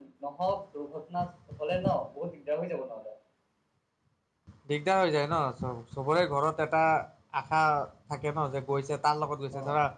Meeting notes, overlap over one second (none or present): none